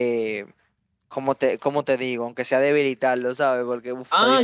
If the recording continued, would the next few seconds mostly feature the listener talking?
Yes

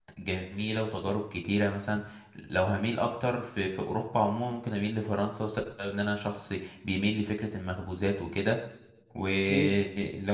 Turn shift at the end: No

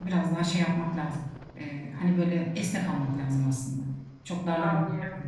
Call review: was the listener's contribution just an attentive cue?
No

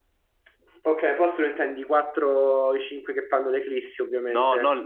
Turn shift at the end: Yes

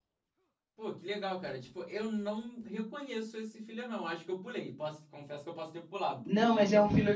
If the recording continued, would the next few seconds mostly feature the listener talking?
Yes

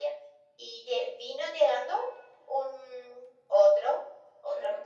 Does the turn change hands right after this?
No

